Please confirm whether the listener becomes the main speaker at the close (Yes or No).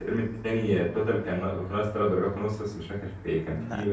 No